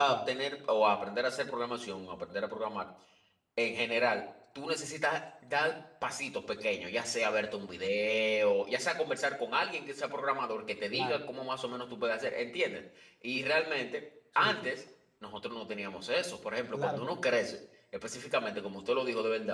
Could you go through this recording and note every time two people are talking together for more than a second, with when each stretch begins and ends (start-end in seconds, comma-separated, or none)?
none